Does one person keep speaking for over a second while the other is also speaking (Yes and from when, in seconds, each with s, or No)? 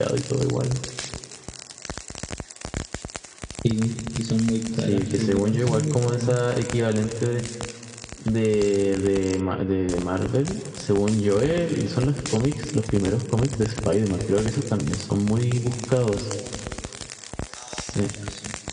Yes, from 4.7 s